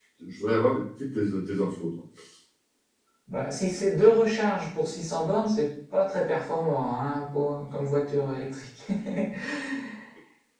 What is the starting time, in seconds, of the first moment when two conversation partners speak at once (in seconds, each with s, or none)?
none